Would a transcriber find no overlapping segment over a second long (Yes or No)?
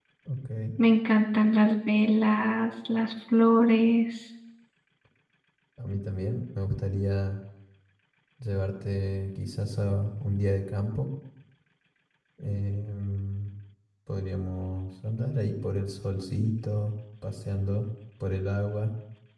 Yes